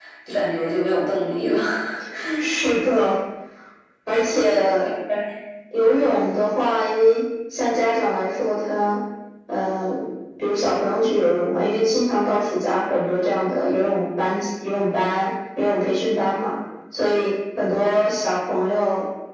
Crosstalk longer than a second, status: none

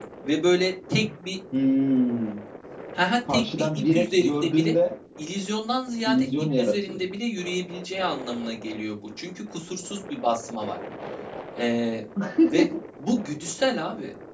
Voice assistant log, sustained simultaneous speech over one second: present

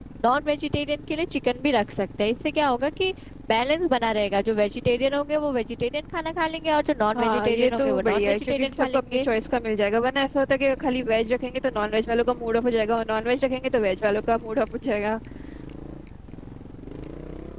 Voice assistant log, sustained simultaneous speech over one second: present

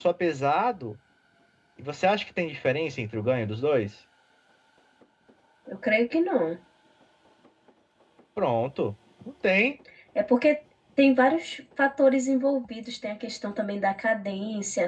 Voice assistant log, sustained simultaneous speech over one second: none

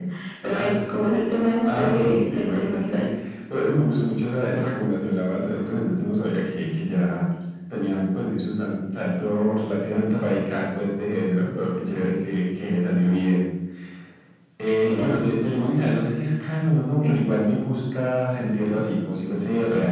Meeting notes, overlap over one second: present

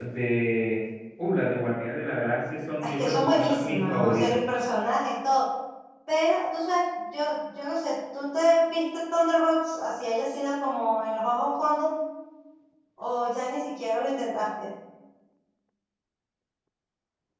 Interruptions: present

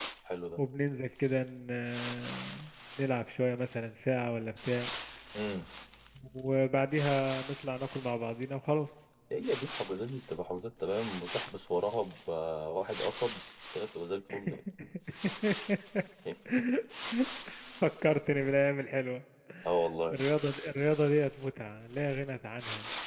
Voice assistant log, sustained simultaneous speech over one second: none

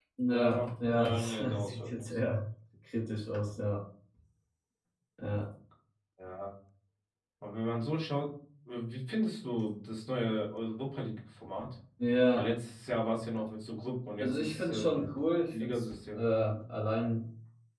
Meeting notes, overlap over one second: present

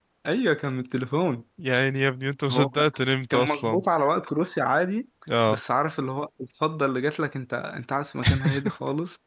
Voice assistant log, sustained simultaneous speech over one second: none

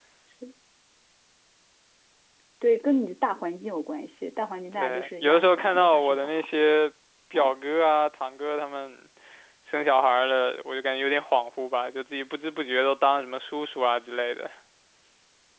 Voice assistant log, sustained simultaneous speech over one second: present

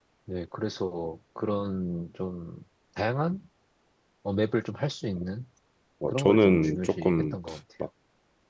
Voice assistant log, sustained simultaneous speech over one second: present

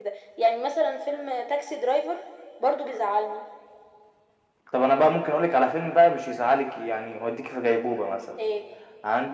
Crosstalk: none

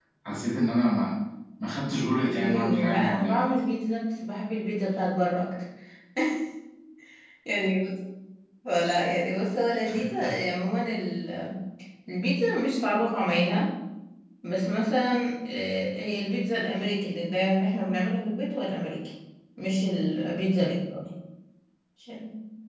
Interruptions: present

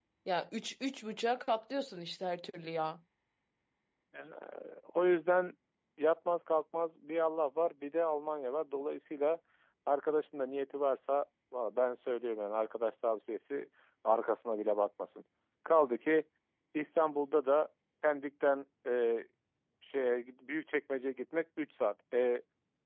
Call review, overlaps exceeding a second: none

